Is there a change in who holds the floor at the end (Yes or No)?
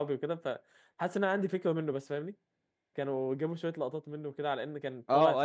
Yes